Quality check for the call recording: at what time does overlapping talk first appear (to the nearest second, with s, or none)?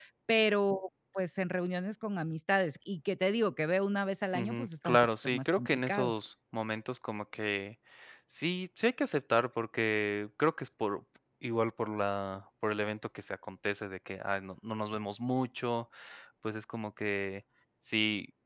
4 s